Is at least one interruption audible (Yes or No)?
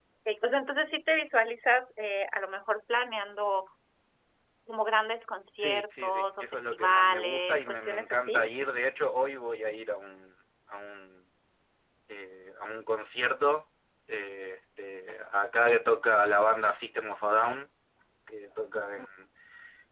Yes